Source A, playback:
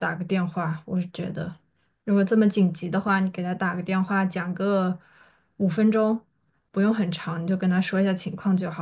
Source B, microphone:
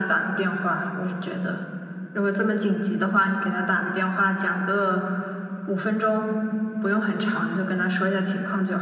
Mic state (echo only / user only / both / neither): echo only